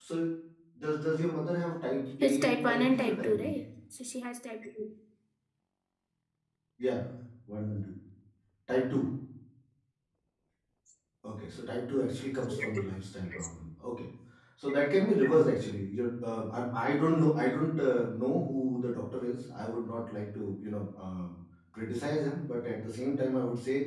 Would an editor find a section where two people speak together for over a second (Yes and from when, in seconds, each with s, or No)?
Yes, from 2.2 s